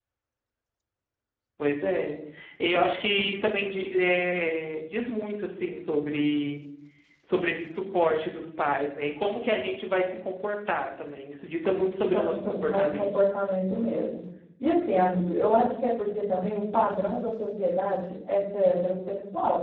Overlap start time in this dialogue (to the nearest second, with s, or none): 12 s